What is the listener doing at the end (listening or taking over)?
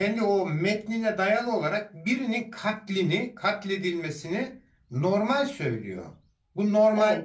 listening